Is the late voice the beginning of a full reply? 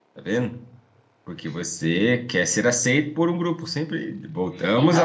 Yes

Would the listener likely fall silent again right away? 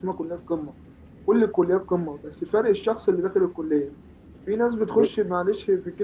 Yes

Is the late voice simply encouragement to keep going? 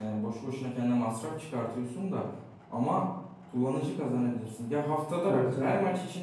Yes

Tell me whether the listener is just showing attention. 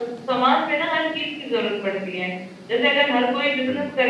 Yes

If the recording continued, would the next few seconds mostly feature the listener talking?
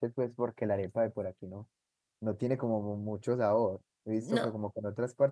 No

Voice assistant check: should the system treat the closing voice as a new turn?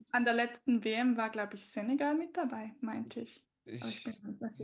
Yes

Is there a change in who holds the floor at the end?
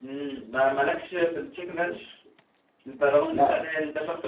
No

